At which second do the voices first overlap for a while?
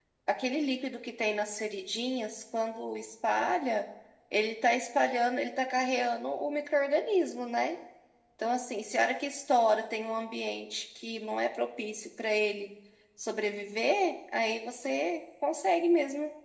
none

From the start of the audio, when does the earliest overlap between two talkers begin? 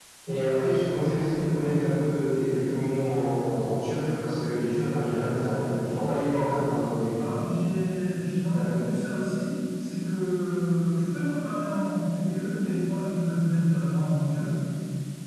none

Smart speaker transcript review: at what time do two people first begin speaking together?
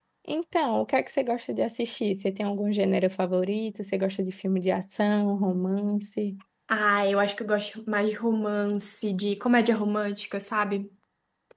none

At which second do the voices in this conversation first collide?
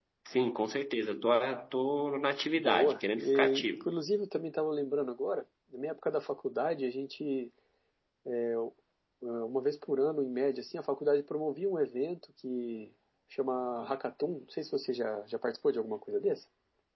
2.5 s

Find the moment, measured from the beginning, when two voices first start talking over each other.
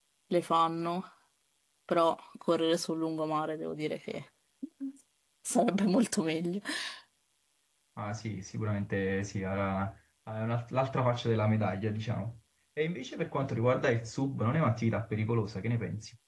none

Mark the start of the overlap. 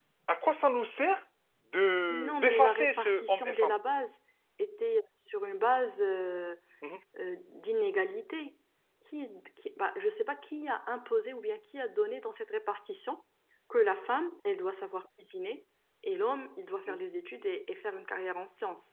2.1 s

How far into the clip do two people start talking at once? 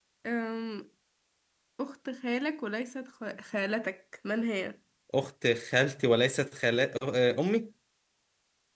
none

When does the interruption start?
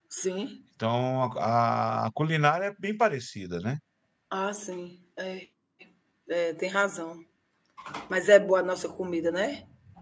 none

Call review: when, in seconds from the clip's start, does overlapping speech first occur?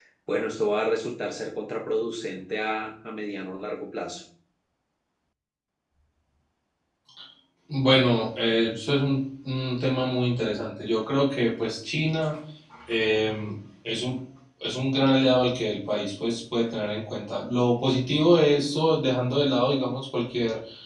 none

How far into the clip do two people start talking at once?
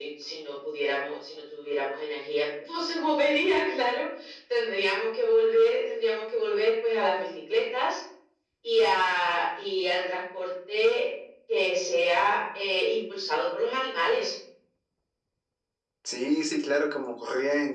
none

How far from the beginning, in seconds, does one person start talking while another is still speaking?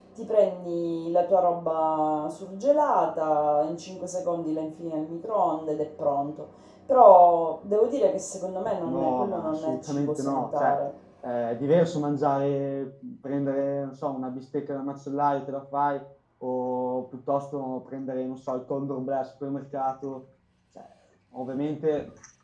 8.8 s

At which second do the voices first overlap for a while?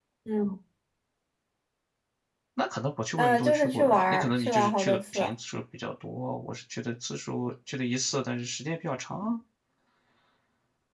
3.2 s

